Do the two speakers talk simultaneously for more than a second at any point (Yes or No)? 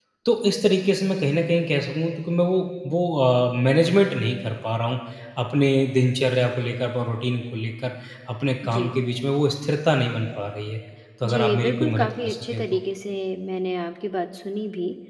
Yes